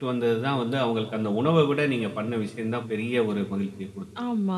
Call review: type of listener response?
taking over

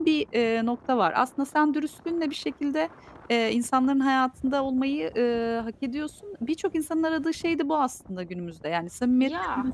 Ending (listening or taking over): listening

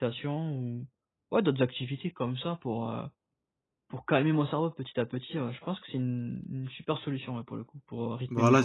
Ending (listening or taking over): taking over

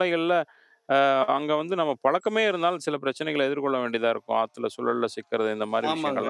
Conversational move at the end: taking over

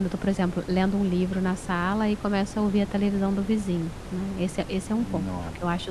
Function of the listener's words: listening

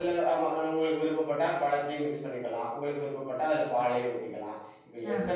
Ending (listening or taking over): listening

